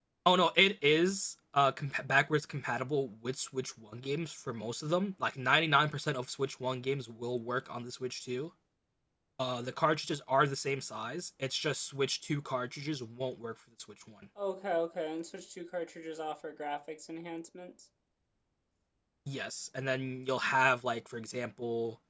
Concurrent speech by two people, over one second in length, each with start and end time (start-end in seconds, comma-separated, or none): none